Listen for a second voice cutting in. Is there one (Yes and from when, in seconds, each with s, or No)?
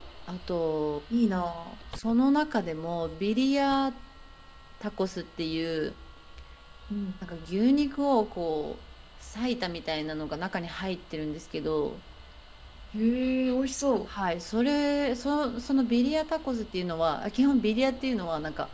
No